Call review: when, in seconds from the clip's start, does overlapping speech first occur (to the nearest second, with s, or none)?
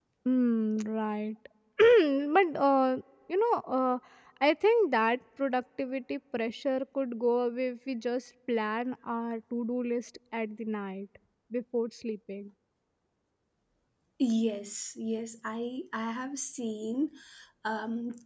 none